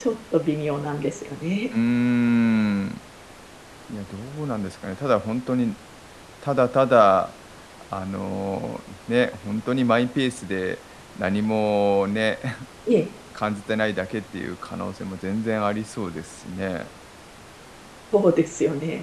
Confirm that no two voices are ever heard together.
Yes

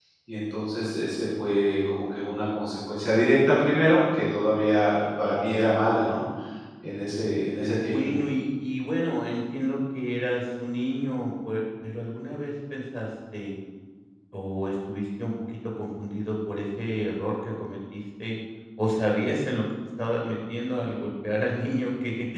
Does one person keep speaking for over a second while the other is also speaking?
No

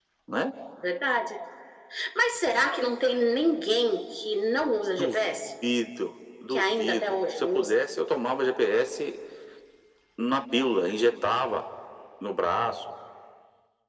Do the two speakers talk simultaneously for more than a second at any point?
Yes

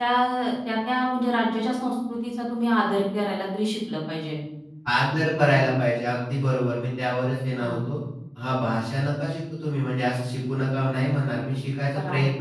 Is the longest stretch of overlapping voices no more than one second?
Yes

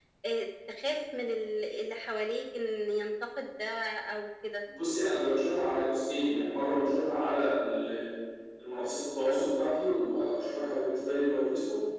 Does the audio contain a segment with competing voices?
No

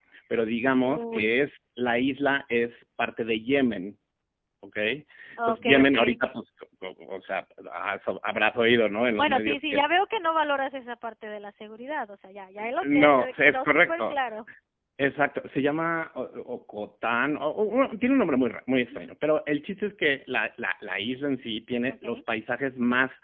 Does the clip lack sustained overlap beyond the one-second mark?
No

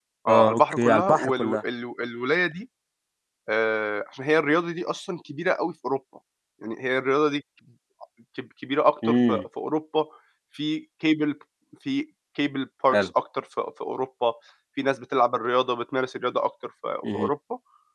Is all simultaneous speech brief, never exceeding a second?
No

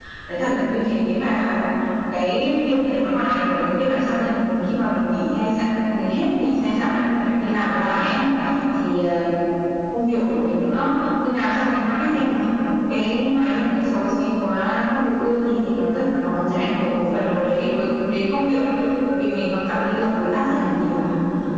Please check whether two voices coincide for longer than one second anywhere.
Yes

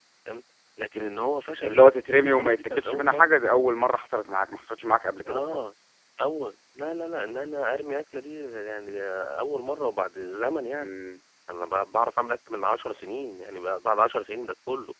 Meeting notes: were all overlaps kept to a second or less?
No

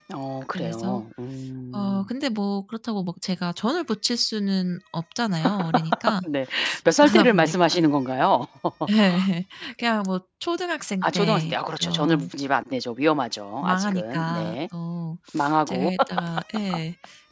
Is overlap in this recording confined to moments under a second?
No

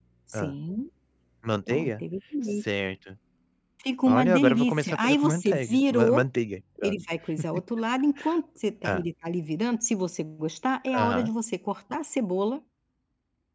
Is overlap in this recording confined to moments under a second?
No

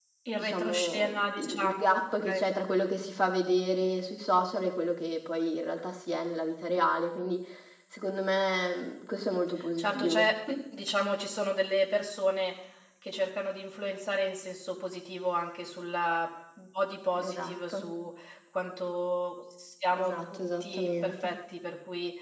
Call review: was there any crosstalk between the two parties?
Yes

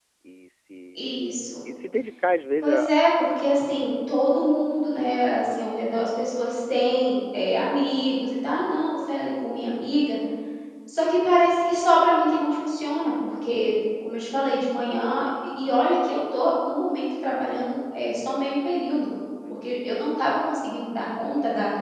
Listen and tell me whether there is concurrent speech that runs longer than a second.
No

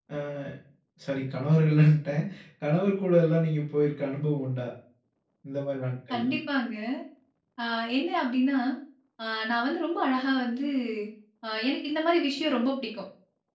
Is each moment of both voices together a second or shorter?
Yes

